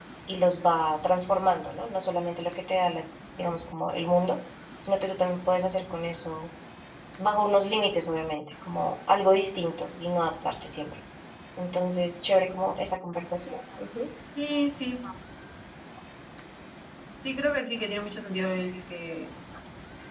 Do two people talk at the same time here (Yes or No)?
No